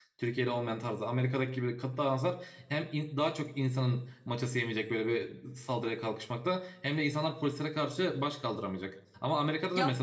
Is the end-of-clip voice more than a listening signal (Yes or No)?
No